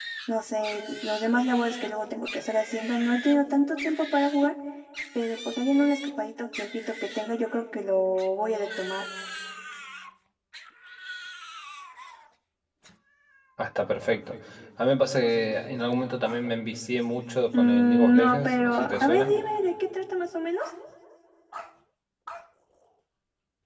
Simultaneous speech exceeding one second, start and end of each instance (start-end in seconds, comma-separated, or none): 17.5-19.3